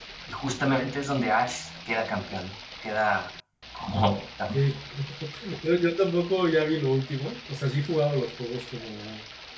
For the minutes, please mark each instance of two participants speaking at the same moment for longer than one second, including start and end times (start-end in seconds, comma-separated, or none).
none